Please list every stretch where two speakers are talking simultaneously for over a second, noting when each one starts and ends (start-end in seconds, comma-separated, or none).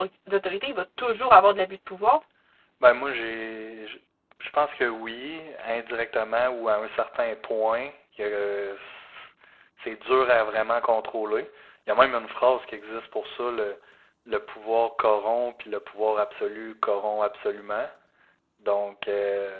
none